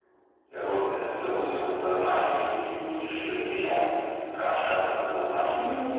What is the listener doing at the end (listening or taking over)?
taking over